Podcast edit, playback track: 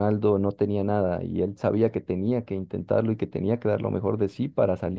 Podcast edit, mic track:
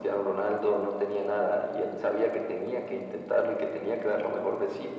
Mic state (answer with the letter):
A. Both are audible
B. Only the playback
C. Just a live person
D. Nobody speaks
B